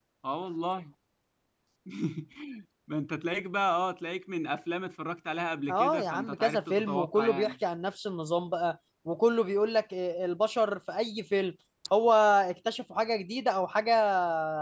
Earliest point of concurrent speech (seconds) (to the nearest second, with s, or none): 6 s